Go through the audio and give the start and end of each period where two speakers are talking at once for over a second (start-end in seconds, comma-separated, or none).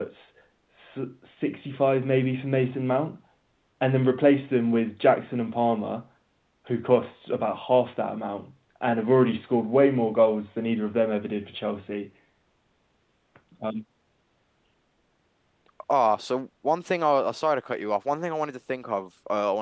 none